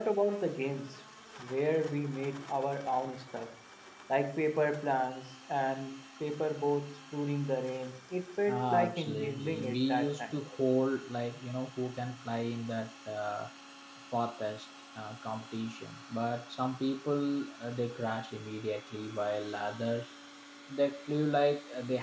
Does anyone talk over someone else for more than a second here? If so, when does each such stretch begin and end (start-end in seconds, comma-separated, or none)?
8.5-10.4